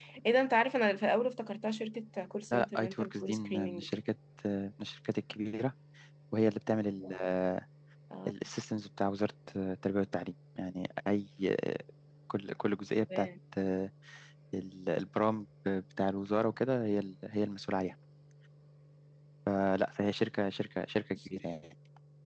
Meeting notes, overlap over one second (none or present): present